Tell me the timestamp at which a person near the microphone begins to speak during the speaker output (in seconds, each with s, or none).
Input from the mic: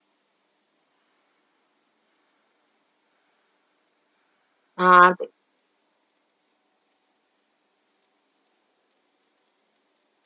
4.8 s